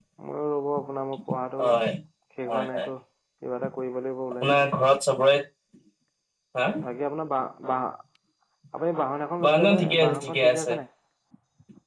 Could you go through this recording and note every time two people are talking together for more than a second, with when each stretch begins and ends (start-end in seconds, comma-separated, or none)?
9.4-10.7